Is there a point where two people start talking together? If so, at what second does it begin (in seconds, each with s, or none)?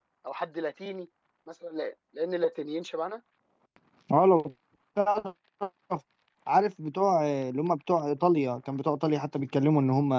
none